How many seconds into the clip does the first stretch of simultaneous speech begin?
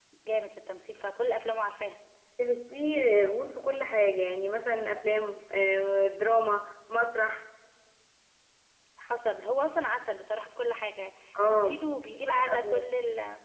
11.3 s

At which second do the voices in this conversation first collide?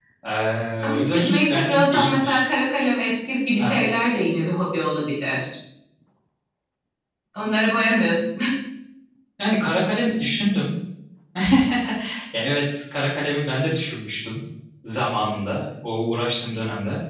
0.8 s

